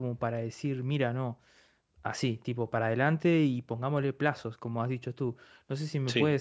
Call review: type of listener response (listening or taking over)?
listening